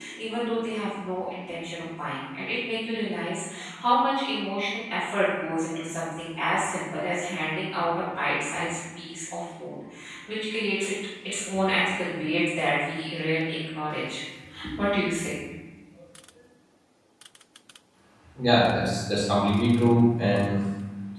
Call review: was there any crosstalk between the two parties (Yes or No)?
No